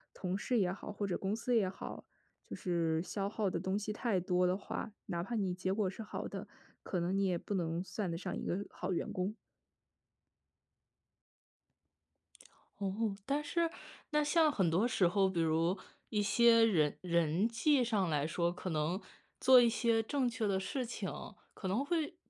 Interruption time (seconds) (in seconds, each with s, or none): none